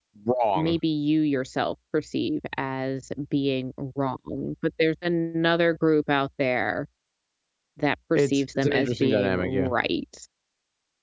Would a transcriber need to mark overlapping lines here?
Yes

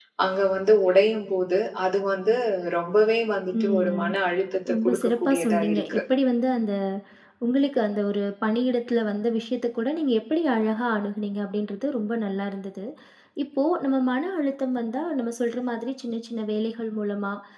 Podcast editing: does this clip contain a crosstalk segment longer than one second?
Yes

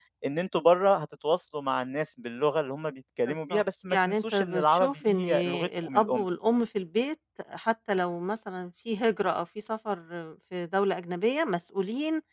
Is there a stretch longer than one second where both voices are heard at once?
Yes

